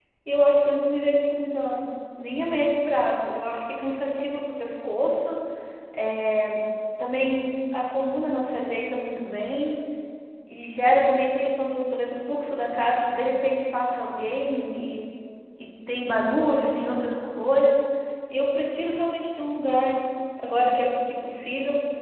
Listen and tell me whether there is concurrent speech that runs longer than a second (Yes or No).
No